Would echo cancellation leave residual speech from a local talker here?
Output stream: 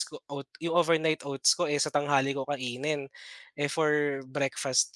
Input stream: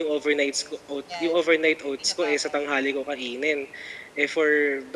Yes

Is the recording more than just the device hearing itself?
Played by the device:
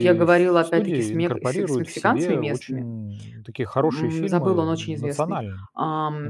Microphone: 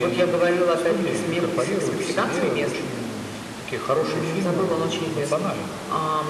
No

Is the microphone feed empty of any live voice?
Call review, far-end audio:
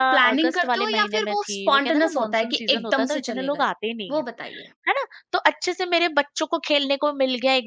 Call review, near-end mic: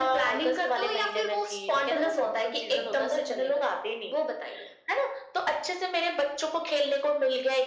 Yes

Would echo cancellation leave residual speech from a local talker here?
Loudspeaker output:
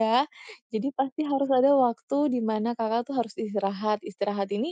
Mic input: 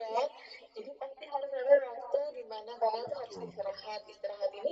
Yes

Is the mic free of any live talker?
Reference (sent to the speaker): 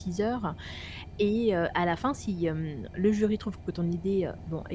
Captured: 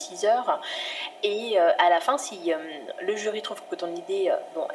Yes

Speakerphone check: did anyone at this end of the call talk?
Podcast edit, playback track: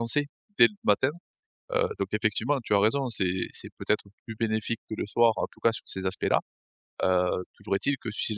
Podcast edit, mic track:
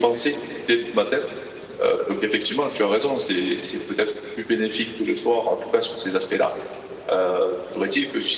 No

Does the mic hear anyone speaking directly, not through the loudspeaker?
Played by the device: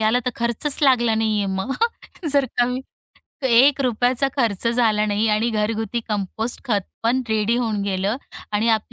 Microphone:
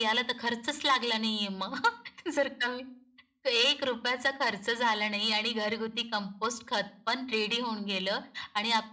No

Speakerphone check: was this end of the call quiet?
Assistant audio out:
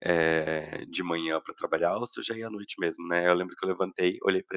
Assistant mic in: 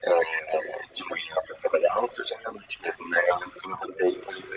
Yes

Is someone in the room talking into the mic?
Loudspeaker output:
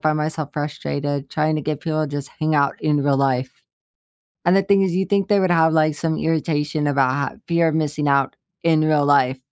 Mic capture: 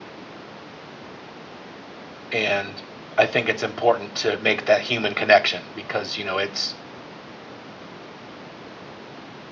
Yes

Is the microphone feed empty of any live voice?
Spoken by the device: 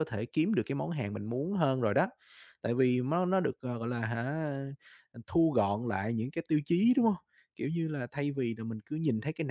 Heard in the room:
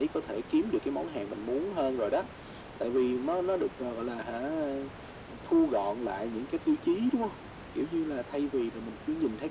Yes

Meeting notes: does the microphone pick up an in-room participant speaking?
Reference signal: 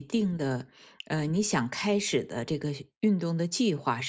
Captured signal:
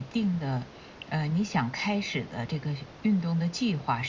No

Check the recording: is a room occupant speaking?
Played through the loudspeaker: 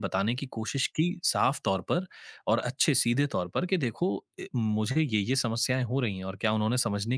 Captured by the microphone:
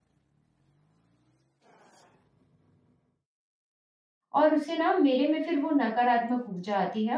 Yes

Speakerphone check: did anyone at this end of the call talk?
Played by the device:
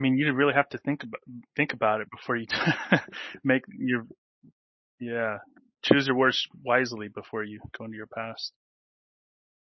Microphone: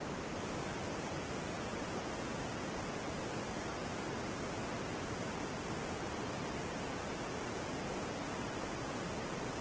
No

